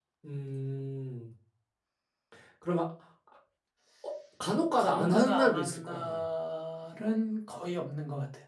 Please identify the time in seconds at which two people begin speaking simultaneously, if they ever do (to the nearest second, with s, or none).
5 s